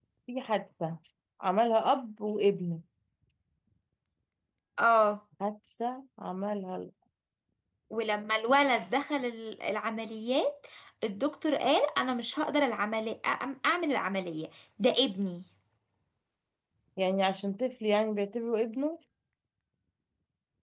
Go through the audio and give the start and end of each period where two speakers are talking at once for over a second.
none

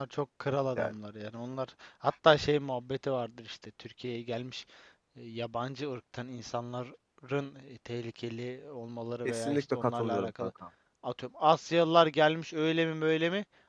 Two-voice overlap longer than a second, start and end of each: 9.2-10.5

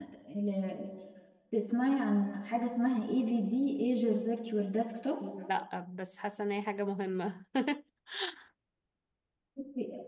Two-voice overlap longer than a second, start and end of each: none

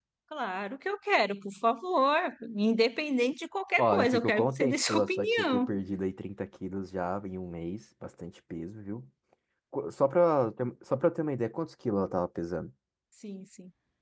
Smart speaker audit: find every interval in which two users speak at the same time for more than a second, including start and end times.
3.8-5.7

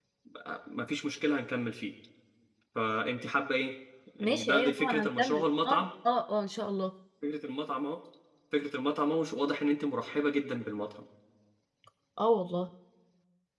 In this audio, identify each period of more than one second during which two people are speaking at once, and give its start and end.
4.2-5.9

